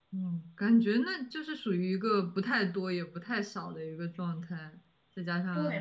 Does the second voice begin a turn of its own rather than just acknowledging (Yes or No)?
Yes